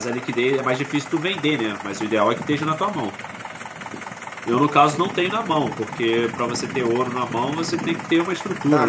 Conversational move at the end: taking over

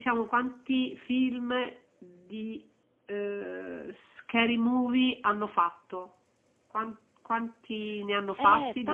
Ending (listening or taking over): taking over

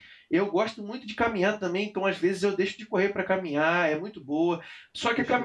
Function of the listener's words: listening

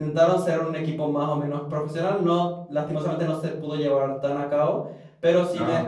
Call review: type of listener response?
listening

